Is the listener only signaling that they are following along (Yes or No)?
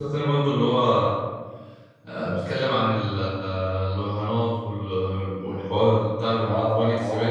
No